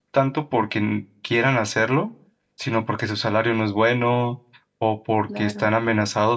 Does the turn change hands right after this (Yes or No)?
No